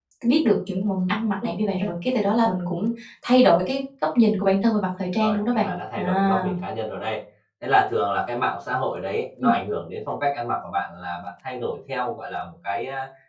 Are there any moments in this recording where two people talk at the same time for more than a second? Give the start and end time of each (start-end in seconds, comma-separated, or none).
5.2-6.5